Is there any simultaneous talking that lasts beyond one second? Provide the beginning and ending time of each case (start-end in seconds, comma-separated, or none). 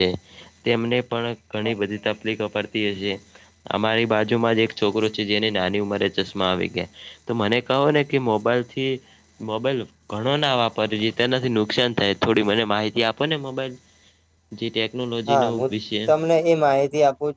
none